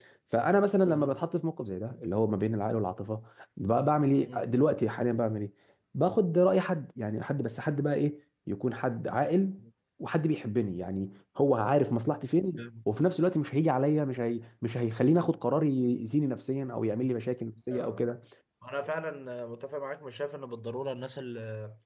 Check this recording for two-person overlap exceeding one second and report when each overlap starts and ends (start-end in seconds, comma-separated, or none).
none